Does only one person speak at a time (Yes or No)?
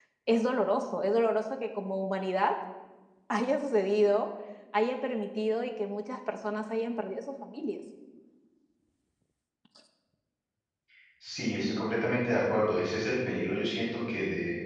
Yes